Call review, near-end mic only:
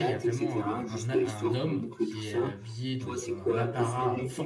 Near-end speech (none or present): present